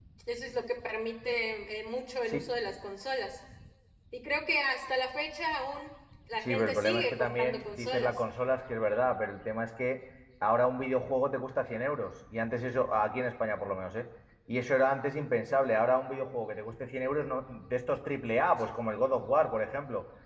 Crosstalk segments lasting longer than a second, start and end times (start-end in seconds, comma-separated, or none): 6.5-8.1